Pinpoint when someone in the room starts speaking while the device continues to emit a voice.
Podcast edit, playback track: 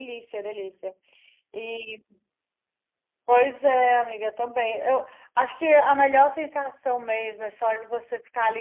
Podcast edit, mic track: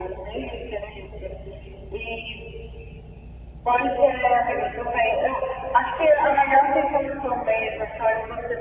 none

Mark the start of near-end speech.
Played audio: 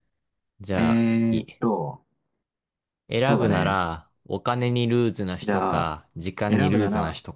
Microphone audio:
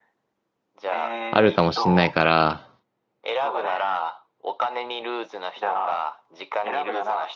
1.3 s

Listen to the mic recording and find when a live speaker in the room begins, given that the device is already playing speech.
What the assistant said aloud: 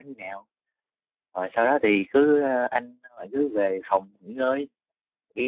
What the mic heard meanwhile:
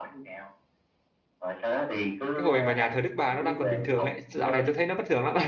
2.3 s

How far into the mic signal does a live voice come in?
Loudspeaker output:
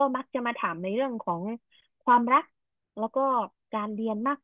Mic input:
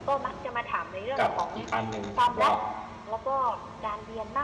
1.2 s

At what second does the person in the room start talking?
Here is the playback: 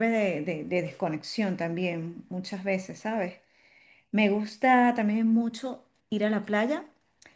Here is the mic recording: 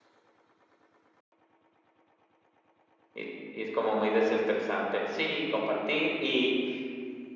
3.1 s

